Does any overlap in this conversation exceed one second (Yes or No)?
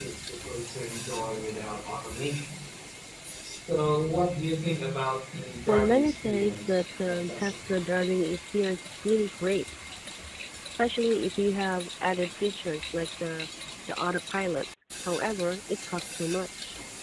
Yes